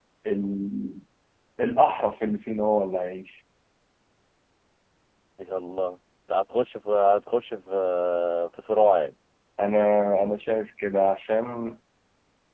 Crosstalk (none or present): none